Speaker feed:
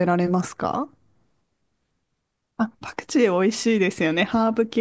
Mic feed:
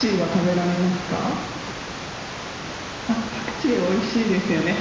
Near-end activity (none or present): none